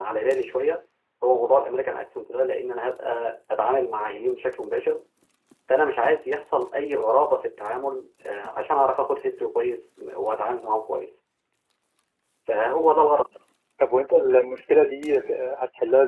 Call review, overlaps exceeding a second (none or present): none